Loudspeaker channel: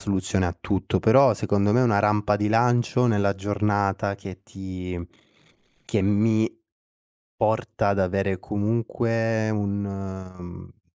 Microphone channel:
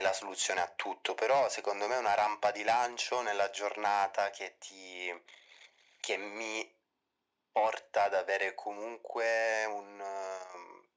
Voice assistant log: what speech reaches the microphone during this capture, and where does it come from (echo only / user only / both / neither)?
echo only